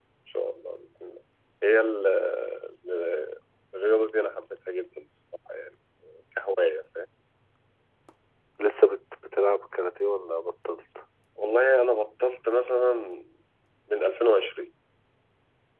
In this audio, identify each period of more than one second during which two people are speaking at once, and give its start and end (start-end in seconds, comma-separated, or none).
none